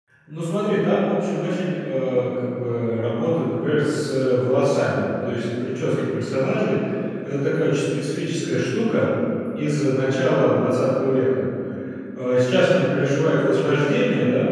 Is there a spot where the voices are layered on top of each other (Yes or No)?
No